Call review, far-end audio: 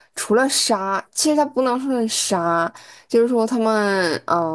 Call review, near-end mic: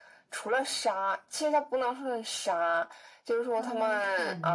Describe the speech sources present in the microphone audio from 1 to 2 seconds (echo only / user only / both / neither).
echo only